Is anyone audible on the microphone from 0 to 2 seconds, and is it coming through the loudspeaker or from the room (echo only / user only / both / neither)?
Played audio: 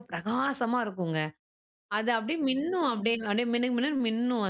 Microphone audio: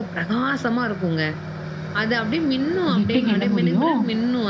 echo only